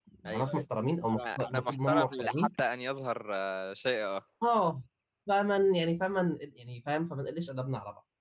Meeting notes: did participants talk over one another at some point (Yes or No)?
Yes